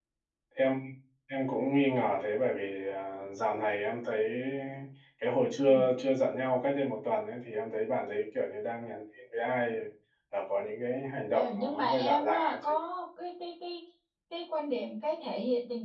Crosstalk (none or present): present